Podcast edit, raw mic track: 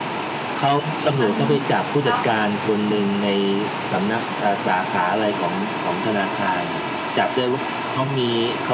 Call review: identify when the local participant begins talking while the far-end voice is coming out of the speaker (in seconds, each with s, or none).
0.9 s